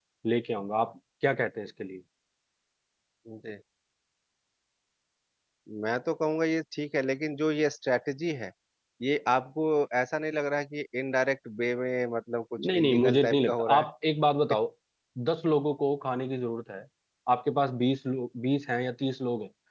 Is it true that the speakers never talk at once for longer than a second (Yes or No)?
No